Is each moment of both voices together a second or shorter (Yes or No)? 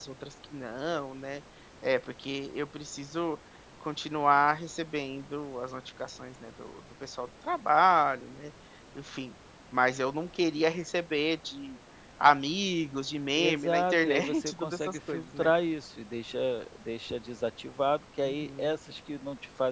No